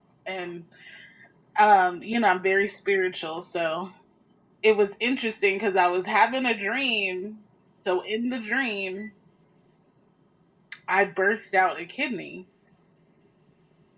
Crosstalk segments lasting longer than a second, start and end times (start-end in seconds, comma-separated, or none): none